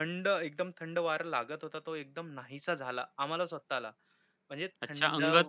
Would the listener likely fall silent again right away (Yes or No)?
No